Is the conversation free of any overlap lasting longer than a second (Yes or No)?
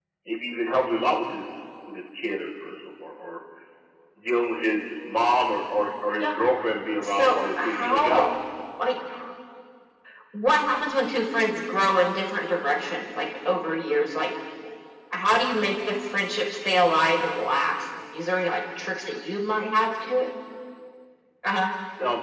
No